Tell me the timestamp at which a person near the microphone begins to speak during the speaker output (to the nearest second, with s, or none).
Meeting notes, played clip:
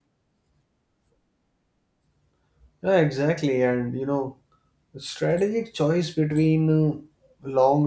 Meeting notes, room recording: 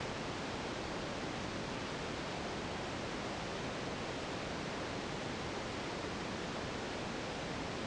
none